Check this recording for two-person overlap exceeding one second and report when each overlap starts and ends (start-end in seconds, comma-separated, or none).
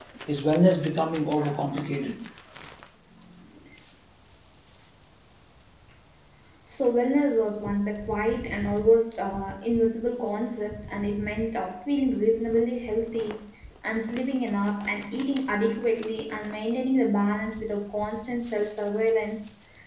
none